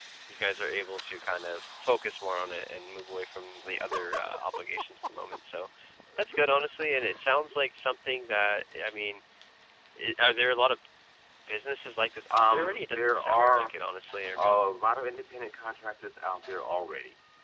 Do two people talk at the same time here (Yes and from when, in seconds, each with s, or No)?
Yes, from 12.3 s